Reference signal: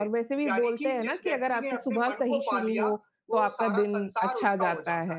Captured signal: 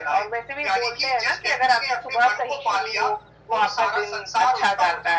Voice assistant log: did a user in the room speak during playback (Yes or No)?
No